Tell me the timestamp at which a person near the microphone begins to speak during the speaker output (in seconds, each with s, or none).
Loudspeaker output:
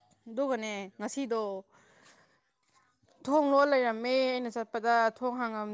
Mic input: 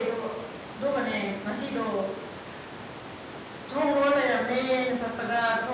none